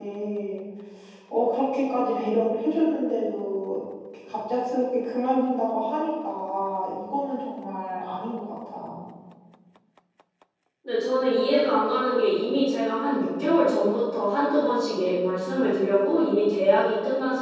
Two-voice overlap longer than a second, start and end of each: none

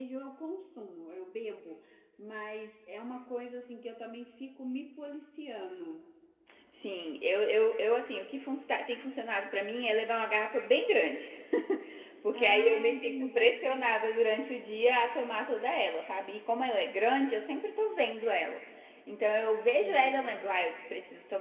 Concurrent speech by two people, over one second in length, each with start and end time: 12.3-13.7

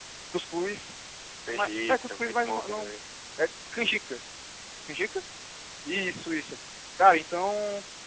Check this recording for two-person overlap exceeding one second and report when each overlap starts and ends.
1.5-2.9

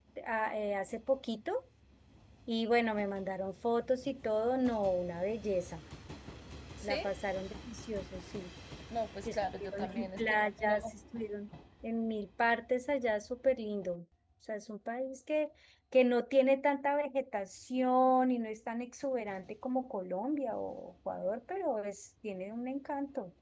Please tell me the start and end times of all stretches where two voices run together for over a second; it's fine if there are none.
9.2-10.8

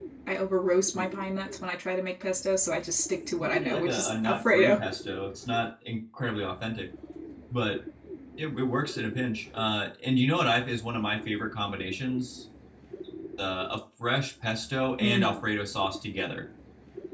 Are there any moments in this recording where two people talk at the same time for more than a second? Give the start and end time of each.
3.4-4.8

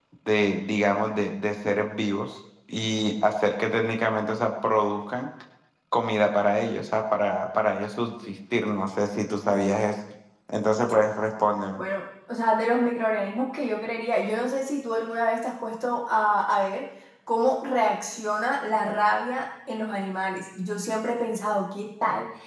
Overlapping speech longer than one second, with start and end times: none

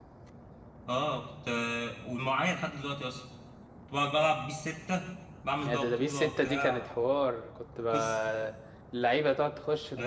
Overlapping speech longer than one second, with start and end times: 5.6-6.9

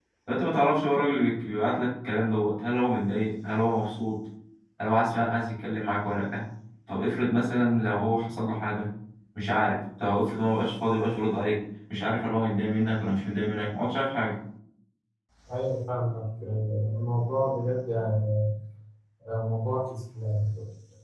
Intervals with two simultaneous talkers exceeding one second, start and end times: none

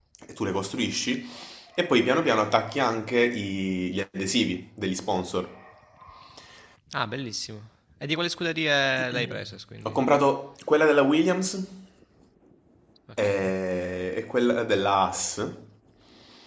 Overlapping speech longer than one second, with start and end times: none

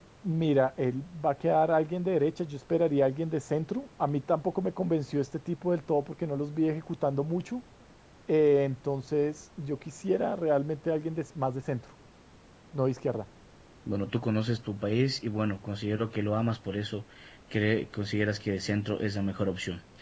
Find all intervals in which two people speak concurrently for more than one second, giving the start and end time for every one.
none

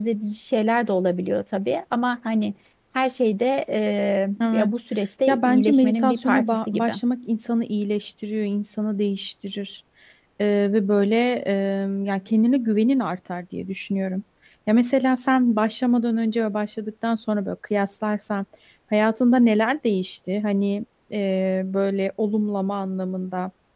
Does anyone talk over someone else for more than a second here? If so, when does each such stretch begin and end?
5.3-6.9

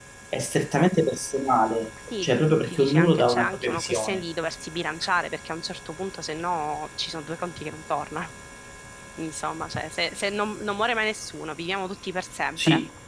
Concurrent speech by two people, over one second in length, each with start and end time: 2.2-4.2

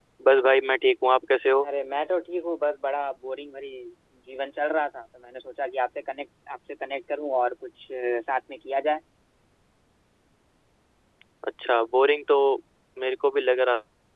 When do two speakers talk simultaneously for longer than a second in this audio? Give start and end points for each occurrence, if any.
none

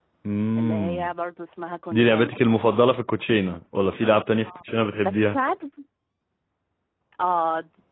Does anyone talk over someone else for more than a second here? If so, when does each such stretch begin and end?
none

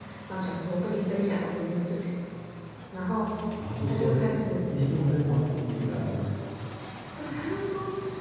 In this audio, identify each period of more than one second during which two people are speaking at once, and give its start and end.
none

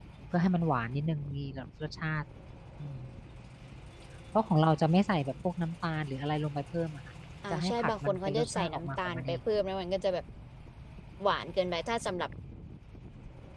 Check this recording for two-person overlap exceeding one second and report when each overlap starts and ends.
7.5-9.3

